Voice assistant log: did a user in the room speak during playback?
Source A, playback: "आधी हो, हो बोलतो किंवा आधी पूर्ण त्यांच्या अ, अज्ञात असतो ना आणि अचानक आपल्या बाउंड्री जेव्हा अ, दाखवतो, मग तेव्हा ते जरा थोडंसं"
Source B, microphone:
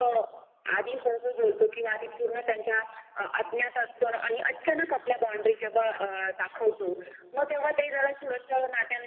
No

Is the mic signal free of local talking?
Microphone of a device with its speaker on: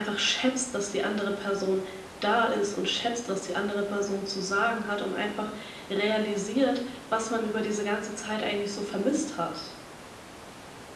Yes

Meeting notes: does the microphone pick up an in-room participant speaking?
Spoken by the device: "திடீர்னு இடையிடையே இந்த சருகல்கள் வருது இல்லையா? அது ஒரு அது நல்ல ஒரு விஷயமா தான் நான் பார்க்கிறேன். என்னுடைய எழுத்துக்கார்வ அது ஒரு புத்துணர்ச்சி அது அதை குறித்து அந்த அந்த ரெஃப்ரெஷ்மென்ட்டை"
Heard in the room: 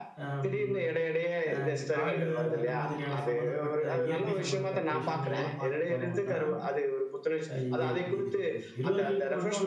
Yes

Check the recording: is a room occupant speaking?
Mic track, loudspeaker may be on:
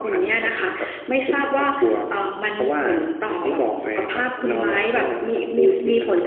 No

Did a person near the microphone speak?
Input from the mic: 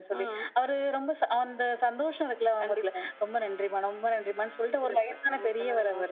No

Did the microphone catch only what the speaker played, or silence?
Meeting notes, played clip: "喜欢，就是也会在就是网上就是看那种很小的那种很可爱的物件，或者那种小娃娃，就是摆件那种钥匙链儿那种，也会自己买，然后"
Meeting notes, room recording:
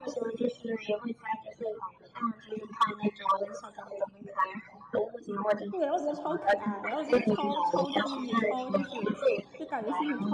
No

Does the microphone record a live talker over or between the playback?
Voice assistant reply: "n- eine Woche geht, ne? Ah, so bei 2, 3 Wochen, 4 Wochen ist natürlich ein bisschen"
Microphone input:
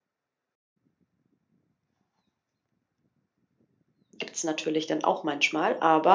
Yes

